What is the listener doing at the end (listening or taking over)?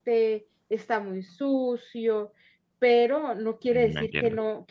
listening